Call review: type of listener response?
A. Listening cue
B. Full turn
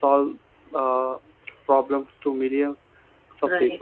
A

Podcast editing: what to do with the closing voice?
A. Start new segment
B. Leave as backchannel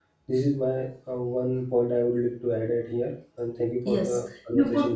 A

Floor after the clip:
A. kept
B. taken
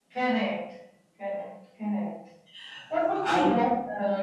A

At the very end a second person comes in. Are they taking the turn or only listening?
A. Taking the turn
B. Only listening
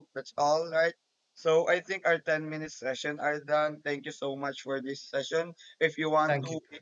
B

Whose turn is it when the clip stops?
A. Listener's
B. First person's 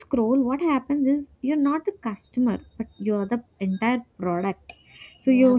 B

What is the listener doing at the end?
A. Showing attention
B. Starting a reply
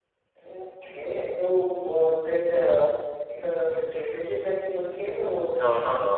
B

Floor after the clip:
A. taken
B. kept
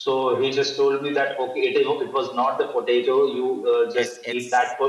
B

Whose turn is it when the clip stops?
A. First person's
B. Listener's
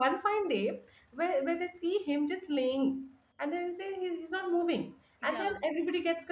A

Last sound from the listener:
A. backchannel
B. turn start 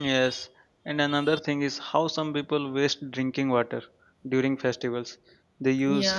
A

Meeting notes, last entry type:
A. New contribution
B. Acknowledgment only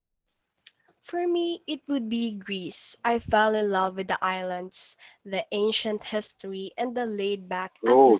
A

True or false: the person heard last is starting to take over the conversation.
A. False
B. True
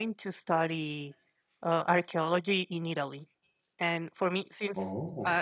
A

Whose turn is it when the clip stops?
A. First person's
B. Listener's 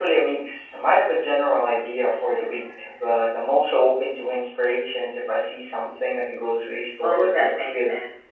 B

